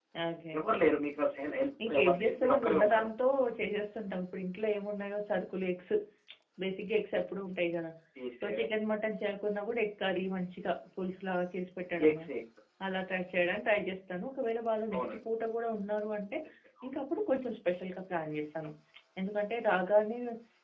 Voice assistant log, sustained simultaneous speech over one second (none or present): present